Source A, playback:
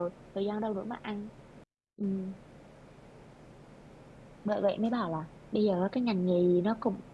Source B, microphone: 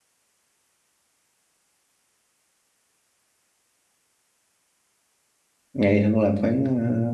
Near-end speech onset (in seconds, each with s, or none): 5.7 s